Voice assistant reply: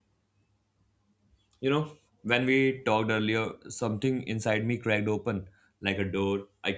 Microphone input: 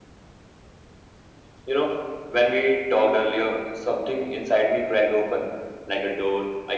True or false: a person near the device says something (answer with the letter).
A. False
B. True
A